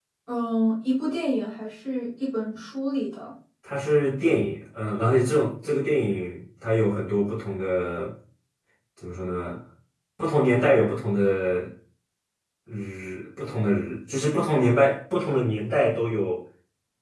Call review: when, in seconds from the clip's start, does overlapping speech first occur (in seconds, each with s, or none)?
none